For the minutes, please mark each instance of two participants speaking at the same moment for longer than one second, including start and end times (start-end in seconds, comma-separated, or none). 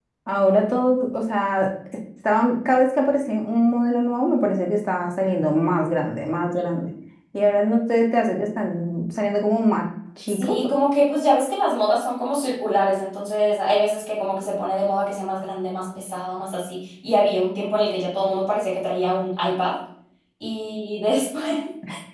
none